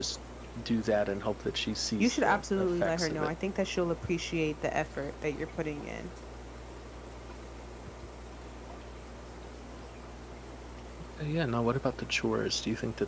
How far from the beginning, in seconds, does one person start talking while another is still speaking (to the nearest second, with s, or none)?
2 s